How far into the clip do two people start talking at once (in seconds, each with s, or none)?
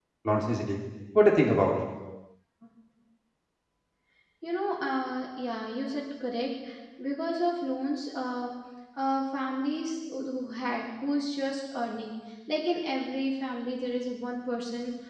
none